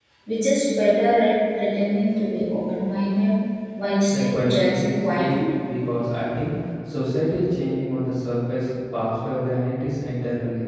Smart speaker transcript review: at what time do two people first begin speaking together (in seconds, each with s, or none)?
4.1 s